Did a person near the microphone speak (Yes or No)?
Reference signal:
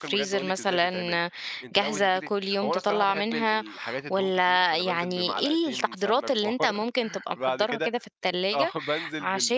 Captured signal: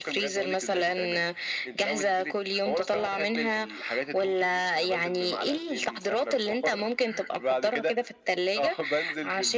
No